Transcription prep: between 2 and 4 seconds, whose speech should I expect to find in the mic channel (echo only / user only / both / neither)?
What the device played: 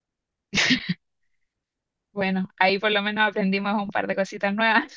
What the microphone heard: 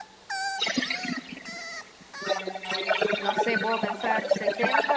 both